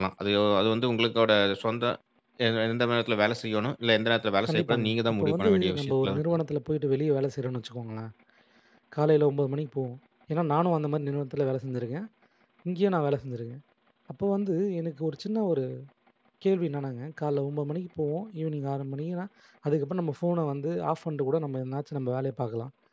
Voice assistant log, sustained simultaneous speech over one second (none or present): present